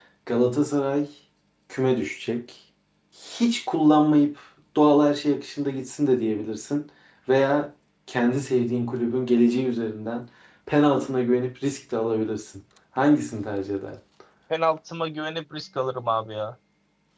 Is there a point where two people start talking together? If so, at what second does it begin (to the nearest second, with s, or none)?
none